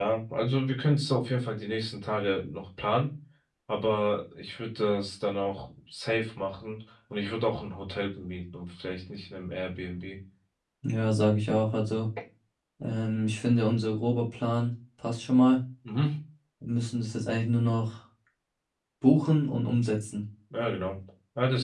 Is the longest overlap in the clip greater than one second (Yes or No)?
No